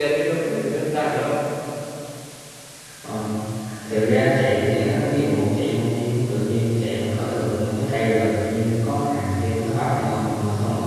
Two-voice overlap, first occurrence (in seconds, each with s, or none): none